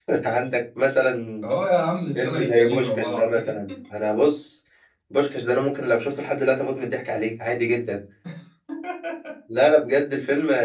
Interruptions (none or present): present